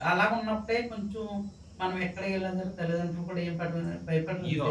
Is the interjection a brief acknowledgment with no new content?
No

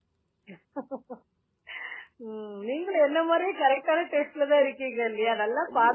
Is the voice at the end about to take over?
Yes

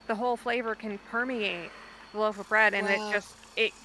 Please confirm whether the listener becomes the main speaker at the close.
No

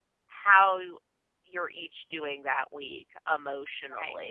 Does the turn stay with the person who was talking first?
Yes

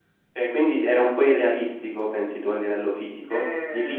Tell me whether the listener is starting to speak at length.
Yes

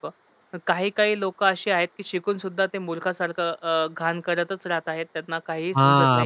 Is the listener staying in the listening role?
No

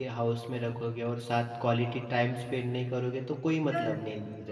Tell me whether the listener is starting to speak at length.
Yes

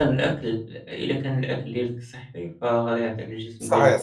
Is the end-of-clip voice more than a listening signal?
No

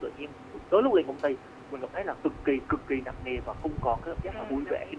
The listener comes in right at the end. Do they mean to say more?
Yes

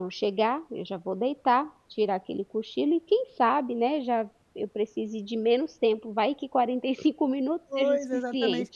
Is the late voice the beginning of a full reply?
Yes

